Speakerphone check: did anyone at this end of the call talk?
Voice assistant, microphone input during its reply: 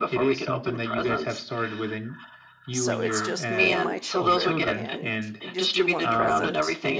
Yes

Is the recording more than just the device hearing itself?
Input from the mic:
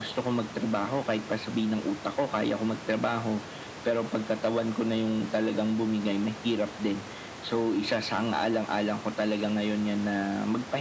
No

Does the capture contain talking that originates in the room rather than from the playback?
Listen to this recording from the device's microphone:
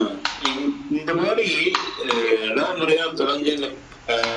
No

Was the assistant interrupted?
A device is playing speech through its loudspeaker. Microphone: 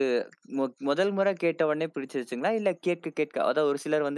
Yes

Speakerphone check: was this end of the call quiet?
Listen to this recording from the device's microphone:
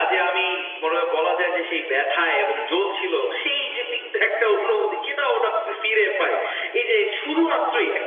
Yes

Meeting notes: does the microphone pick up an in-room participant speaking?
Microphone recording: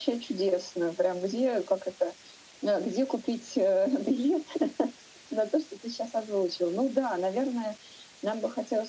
No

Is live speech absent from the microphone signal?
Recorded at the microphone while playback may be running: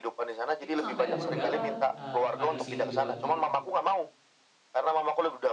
No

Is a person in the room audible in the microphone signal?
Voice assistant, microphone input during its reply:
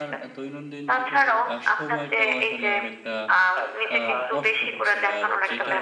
Yes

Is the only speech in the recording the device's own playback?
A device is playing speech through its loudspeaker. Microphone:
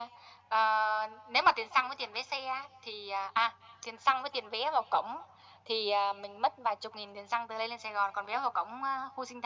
Yes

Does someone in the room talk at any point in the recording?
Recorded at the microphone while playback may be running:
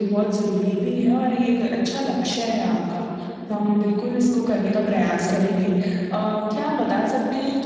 No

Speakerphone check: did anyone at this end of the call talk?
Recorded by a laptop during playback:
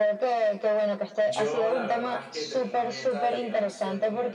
Yes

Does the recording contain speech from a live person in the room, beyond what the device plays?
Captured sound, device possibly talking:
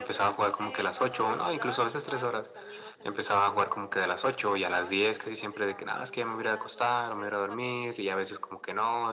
Yes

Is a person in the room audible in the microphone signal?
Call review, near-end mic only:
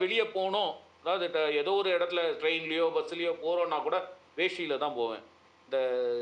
No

